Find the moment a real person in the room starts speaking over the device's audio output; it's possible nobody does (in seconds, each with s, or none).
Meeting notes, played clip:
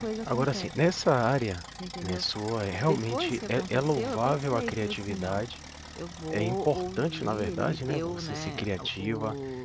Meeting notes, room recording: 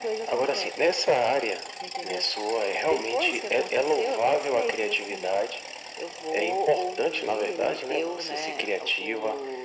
none